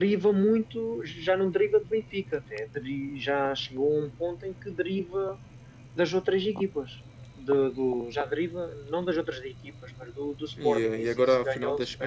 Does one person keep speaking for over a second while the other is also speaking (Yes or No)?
Yes